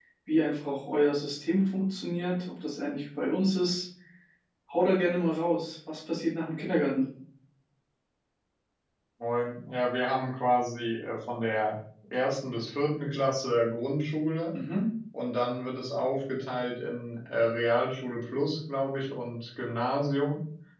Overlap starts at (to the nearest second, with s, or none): none